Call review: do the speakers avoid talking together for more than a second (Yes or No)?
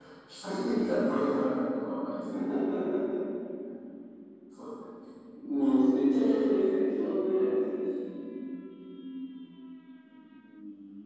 No